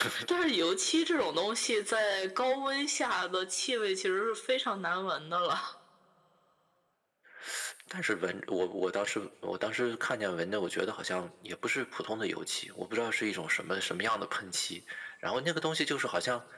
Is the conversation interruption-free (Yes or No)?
Yes